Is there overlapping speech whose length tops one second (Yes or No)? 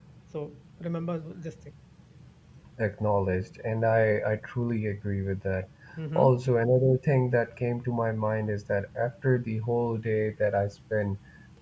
No